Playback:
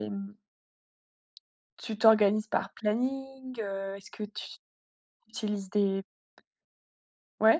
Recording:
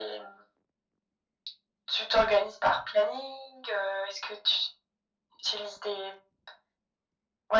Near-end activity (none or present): none